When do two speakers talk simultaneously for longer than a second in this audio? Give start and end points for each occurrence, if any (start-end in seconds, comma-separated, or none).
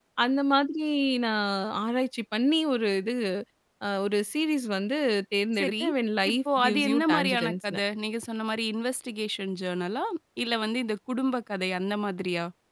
6.3-7.8